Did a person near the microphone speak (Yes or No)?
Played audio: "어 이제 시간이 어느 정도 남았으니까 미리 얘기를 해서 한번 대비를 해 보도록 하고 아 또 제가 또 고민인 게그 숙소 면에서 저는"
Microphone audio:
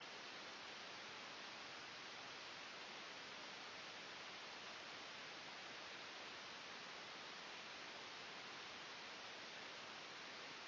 No